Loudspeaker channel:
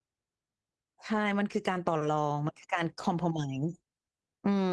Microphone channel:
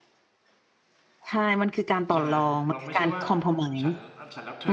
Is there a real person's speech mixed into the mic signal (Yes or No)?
Yes